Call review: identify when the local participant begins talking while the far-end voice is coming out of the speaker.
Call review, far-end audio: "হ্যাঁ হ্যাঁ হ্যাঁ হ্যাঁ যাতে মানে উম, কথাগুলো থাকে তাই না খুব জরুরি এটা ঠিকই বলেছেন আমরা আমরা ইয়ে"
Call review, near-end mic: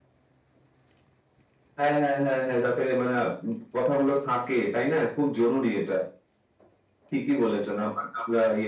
none

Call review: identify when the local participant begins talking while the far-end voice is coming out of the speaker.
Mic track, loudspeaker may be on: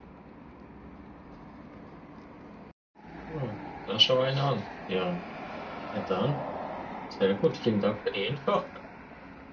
3.3 s

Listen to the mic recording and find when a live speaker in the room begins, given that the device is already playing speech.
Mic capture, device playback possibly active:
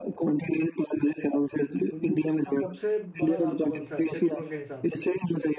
2.0 s

